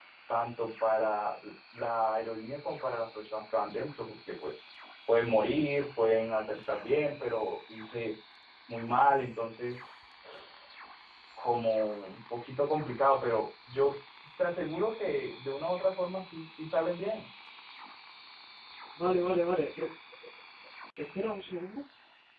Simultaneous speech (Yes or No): No